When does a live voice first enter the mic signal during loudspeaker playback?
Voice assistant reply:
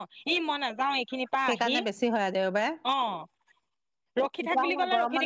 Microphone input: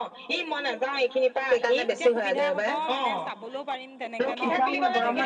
1.9 s

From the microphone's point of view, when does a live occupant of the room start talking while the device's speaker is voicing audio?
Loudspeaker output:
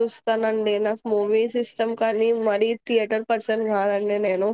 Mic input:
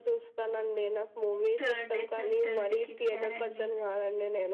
1.6 s

